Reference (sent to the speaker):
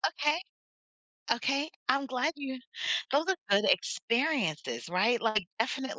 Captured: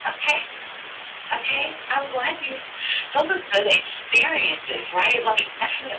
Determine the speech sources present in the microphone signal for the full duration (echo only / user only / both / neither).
echo only